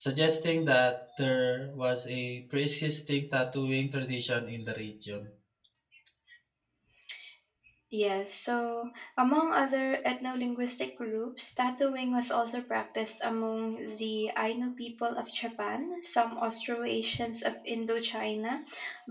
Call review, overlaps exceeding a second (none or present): none